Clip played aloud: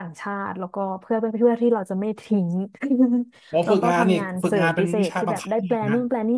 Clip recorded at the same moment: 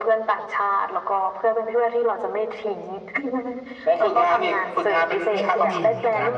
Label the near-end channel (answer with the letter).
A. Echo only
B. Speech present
B